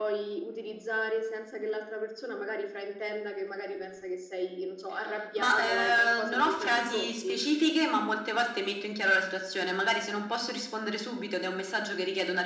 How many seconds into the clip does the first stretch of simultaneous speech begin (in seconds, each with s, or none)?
5.4 s